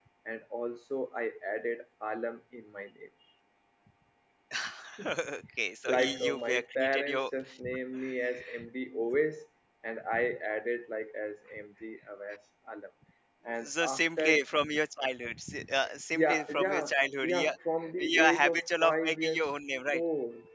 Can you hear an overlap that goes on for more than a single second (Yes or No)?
Yes